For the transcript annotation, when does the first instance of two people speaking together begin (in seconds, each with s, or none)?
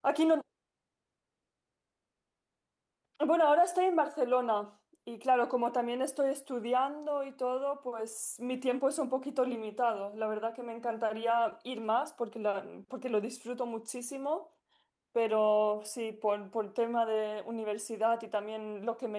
none